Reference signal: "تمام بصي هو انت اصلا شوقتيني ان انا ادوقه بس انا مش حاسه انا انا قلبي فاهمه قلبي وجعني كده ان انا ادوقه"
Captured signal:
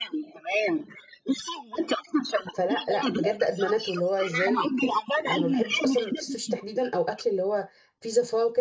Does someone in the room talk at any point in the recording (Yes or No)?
Yes